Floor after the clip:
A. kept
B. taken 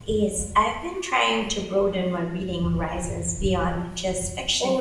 B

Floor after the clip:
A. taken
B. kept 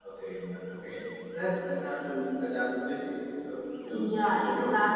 A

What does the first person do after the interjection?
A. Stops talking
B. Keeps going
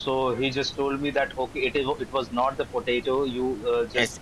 B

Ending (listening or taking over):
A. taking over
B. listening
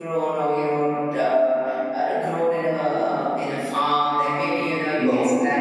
B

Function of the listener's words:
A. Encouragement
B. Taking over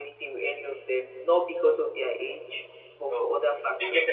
B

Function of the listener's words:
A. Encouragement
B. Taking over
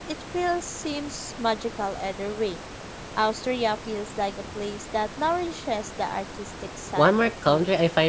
B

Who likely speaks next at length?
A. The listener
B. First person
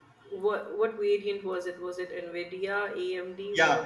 A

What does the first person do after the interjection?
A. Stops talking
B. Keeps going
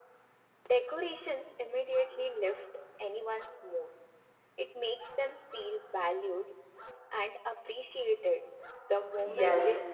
A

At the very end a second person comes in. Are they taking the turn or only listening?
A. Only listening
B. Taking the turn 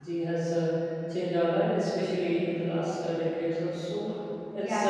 B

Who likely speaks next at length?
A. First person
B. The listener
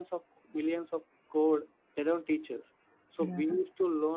A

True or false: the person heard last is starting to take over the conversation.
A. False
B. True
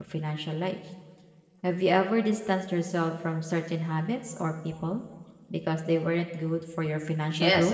B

